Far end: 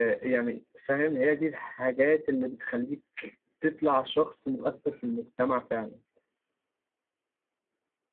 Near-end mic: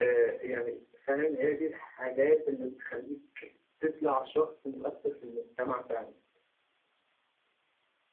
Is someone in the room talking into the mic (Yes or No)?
No